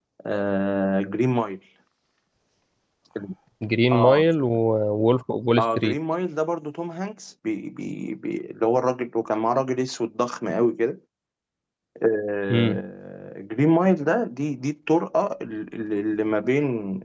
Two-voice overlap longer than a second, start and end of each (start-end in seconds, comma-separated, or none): none